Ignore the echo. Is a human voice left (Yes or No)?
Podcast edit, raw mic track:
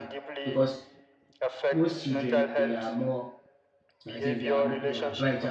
Yes